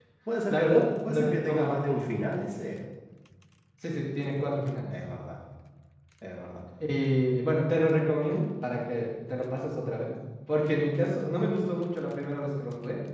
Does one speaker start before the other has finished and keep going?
Yes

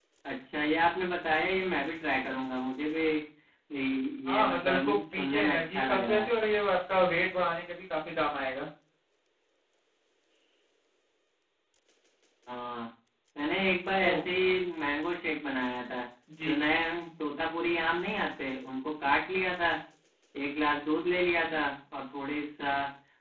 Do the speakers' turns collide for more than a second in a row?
Yes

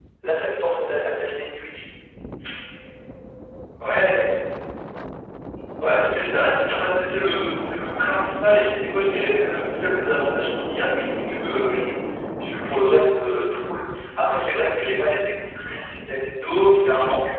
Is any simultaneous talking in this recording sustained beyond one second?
No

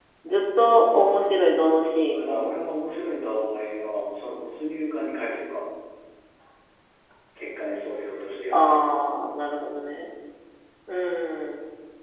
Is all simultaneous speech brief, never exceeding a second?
No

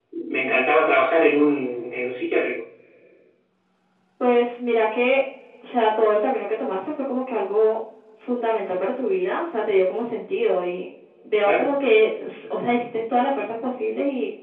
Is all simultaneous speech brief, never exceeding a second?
Yes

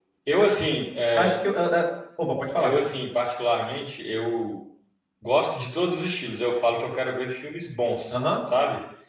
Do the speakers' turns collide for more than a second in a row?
No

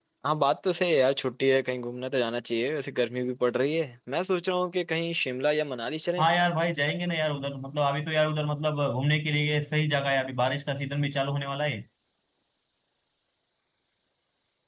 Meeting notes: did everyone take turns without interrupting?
Yes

